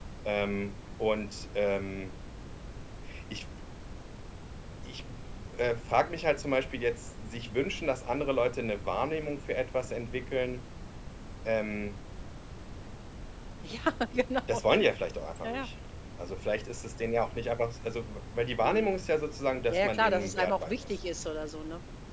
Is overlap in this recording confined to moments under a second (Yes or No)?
No